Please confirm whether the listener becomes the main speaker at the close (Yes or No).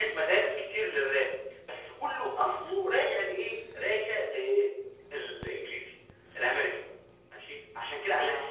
No